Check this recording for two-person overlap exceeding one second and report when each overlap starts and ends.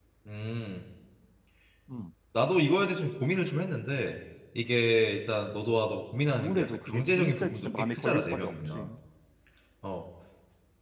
6.3-8.9

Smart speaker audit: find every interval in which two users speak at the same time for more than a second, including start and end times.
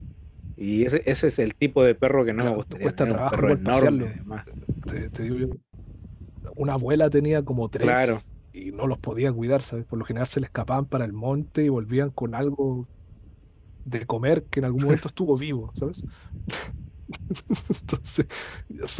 2.3-4.2

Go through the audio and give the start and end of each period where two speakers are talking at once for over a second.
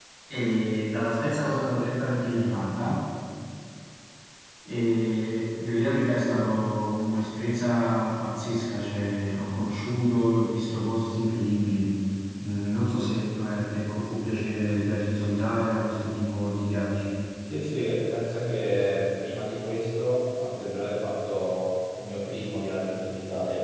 none

